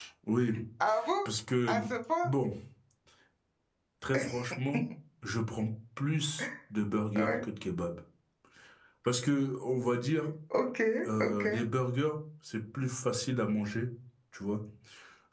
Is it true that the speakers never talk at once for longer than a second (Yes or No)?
Yes